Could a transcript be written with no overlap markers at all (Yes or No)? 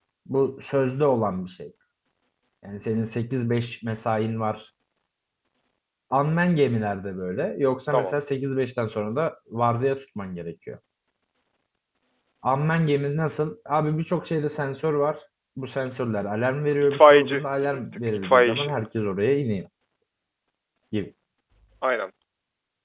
No